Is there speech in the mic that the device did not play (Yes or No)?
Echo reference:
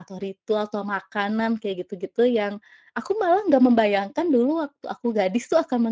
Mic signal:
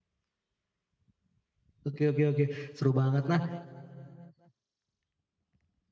Yes